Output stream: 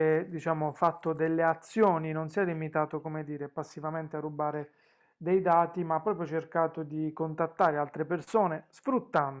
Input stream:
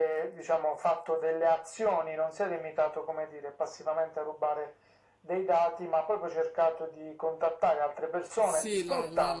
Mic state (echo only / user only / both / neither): both